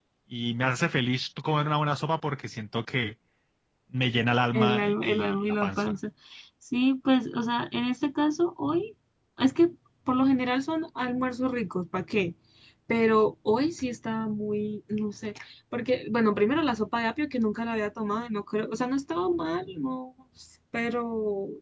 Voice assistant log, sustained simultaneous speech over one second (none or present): present